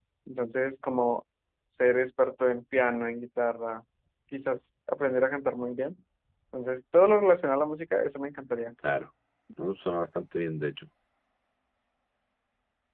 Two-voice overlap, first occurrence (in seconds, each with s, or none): none